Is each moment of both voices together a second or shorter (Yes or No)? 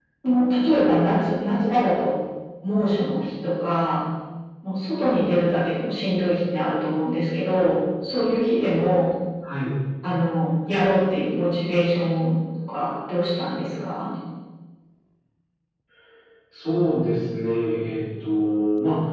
Yes